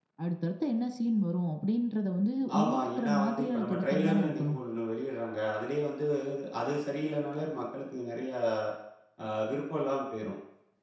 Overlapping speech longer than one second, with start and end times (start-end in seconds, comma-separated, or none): 2.6-4.6